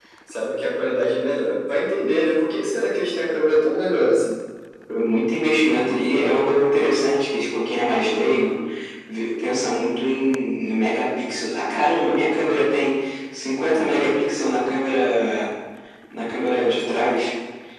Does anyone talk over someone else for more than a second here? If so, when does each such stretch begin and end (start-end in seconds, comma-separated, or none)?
none